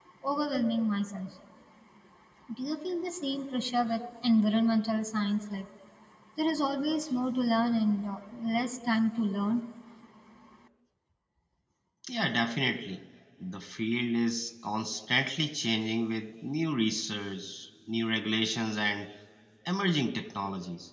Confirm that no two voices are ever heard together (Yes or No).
Yes